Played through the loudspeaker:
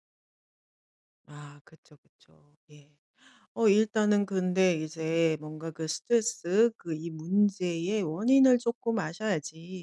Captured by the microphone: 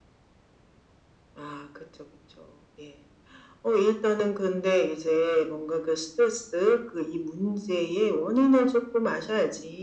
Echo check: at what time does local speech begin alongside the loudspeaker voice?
none

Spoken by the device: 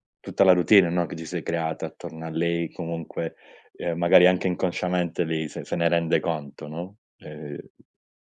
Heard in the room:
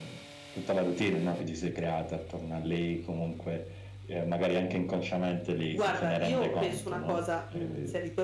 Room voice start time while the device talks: 5.7 s

